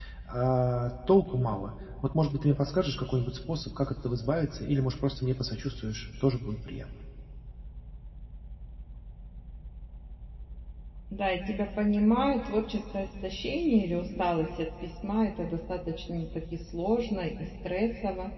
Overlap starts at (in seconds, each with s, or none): none